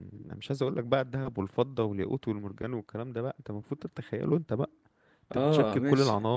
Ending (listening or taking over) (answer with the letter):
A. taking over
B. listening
A